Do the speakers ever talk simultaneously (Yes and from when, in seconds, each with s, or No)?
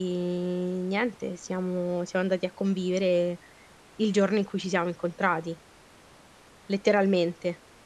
No